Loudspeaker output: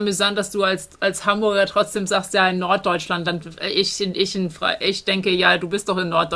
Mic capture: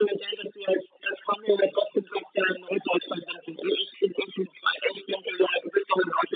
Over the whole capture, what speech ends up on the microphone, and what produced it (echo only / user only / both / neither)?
echo only